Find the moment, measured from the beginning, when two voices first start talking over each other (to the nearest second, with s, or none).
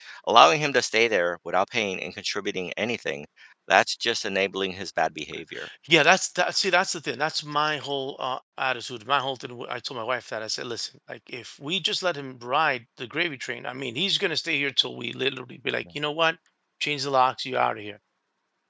none